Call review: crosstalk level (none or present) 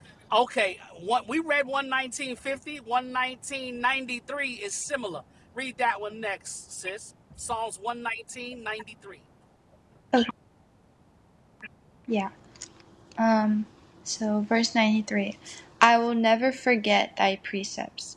none